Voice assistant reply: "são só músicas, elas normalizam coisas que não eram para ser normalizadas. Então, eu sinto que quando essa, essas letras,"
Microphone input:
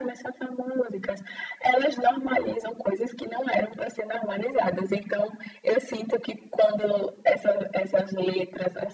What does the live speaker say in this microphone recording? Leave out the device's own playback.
none

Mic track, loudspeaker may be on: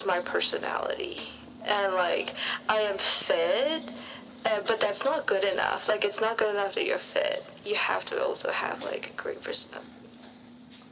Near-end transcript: none

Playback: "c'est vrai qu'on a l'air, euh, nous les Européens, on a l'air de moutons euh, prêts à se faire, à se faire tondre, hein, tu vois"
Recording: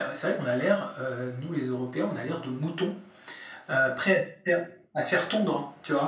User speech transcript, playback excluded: none

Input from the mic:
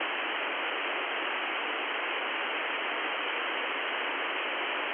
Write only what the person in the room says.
none

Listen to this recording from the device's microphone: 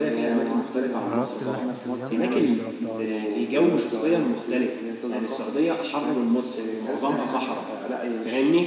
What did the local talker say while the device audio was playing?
جربت لحمة الجمل ولا ما جربتهاش

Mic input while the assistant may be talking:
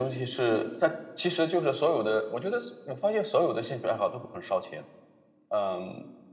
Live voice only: none

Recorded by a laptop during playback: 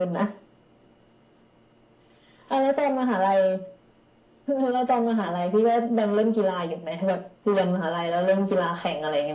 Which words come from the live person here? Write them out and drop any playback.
none

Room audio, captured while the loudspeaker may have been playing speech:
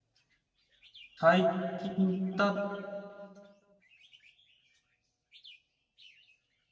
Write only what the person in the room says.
最近だ

